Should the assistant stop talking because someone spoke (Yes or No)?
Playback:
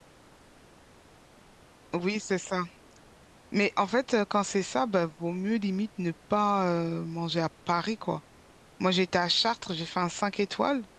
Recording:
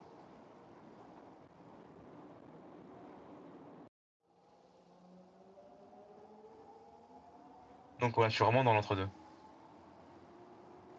Yes